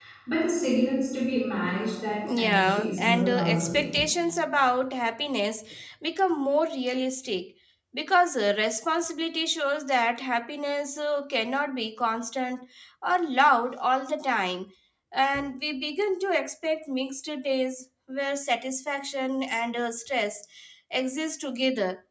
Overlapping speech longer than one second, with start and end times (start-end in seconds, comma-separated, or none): 2.2-3.9